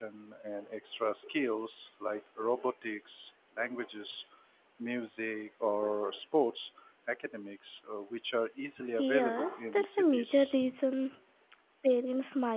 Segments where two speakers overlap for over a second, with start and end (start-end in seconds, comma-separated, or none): 9.0-10.6